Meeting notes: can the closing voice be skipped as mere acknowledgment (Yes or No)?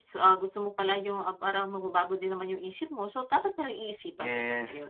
No